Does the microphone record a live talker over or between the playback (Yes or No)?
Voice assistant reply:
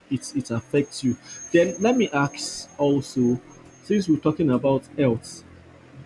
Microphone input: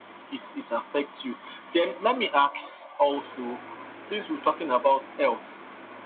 No